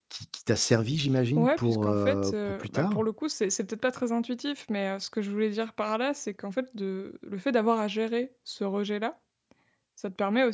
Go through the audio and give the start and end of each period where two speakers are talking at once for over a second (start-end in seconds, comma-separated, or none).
1.4-3.0